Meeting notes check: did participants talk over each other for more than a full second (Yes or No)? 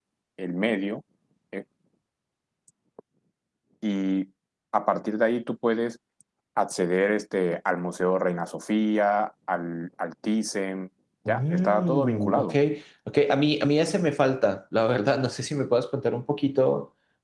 Yes